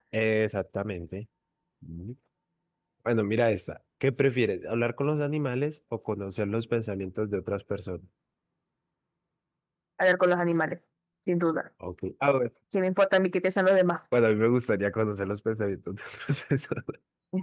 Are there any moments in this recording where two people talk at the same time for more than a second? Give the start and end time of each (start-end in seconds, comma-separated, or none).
none